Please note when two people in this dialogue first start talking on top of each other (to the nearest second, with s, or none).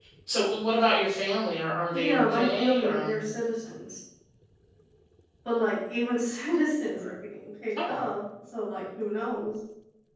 2 s